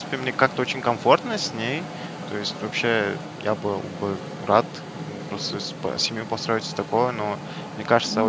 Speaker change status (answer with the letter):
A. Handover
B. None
B